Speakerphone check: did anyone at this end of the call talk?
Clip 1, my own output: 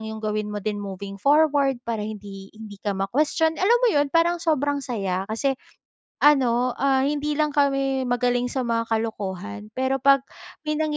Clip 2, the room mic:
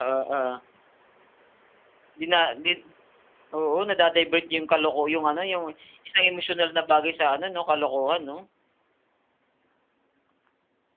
Yes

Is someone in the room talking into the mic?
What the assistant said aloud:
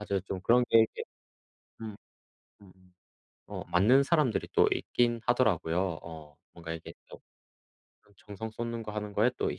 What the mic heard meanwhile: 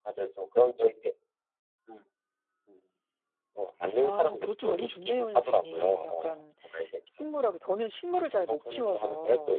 Yes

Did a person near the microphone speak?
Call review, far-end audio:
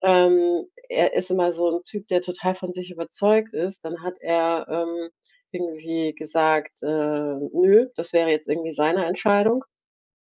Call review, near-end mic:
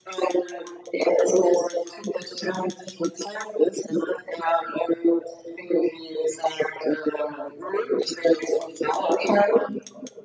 No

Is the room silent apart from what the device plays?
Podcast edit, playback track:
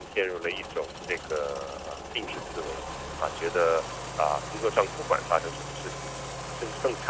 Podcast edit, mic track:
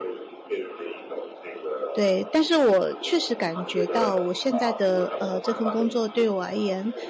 No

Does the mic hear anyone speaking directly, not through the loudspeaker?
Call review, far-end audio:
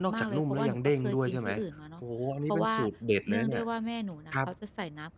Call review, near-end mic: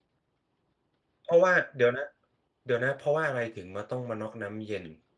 Yes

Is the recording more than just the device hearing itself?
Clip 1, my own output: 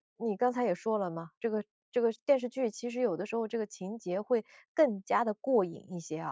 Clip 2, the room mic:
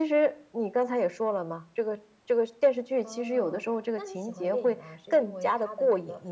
Yes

